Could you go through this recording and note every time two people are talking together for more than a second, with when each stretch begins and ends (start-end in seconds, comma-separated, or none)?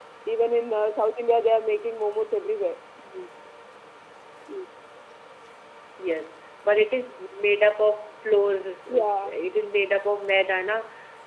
none